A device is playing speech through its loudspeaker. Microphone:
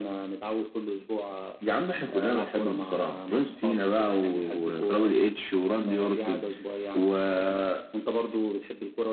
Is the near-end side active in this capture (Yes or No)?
No